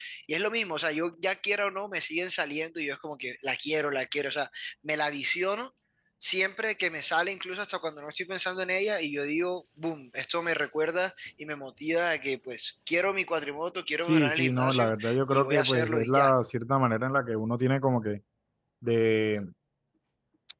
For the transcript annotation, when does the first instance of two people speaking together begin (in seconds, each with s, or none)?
14.0 s